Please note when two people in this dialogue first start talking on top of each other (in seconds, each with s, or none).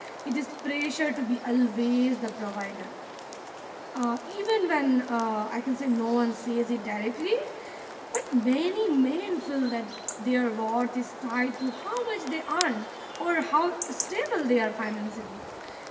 none